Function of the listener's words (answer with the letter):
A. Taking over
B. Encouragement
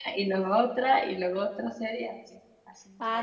A